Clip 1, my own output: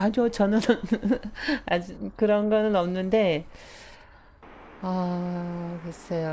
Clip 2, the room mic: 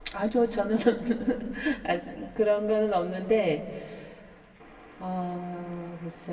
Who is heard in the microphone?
echo only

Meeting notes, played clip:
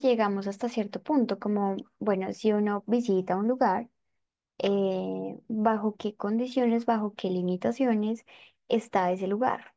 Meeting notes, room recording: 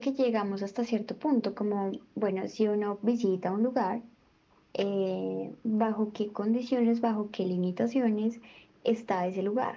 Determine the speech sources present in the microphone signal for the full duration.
echo only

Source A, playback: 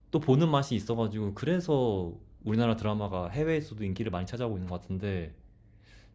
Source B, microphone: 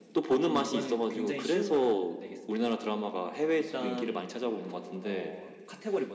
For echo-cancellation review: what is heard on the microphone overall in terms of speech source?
both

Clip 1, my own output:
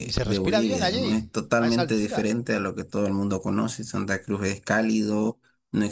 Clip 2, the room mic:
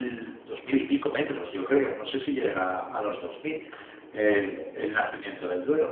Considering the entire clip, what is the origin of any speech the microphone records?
user only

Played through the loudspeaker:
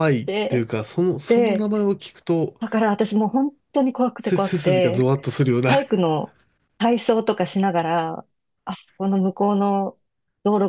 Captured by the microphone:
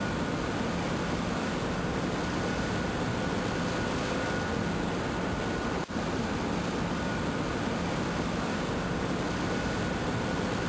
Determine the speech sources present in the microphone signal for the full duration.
neither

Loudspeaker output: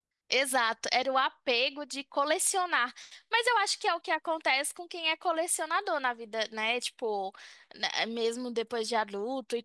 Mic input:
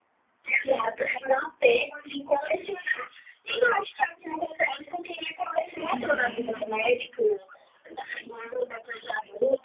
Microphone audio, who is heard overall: both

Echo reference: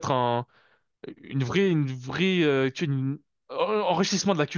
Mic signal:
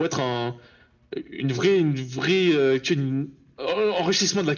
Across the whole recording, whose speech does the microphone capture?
echo only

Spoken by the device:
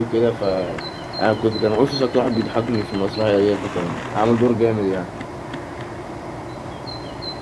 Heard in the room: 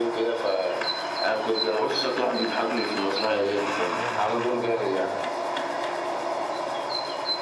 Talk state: both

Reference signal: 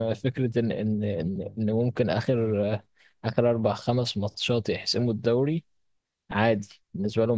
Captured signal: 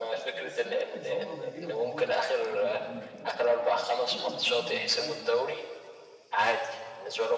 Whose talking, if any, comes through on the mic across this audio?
both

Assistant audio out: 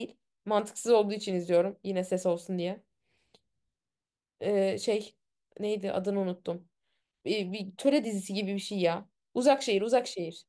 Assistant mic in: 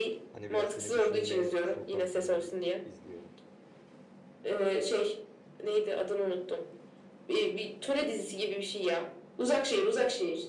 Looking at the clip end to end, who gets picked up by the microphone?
both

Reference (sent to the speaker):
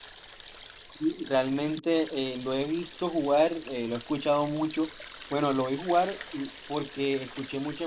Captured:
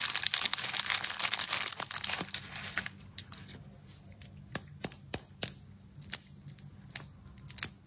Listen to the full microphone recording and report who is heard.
neither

